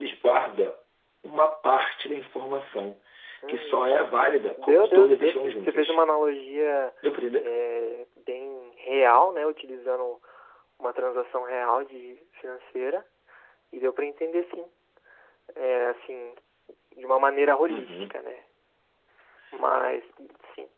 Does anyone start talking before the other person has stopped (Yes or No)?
Yes